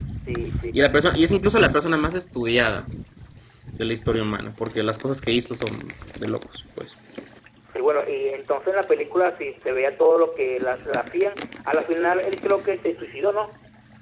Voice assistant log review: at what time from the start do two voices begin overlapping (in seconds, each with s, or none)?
none